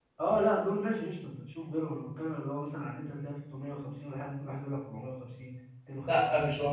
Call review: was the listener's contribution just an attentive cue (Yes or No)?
No